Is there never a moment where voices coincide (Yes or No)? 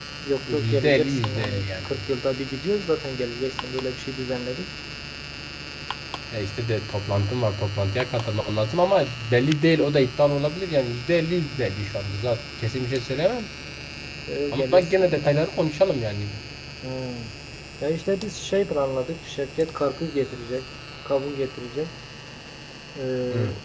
No